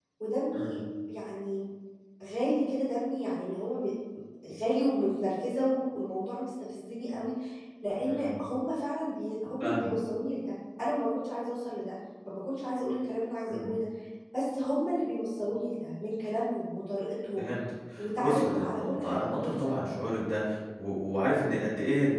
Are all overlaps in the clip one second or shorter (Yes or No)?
No